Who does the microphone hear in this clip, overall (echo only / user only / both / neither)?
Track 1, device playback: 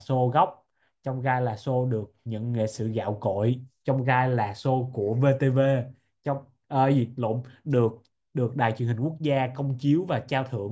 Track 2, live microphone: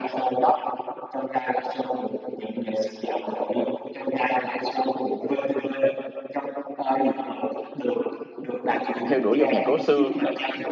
both